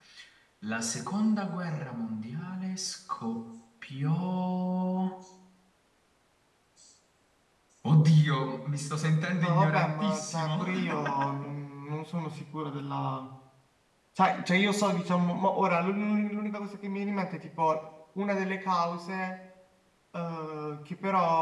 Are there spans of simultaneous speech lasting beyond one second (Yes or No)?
Yes